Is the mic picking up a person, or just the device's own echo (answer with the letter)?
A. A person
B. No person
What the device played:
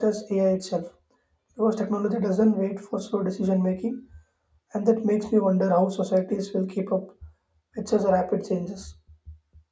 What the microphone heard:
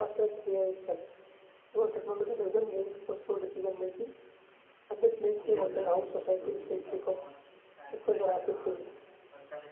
A